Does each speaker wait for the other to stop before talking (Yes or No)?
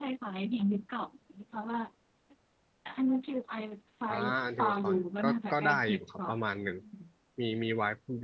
No